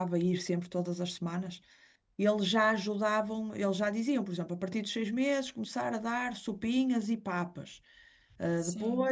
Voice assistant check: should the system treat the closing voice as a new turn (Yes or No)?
No